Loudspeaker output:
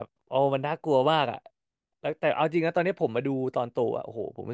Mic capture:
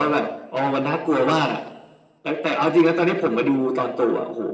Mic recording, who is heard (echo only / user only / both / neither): echo only